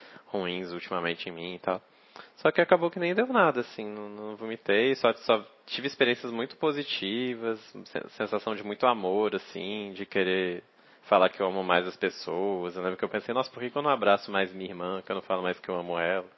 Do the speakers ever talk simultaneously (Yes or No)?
No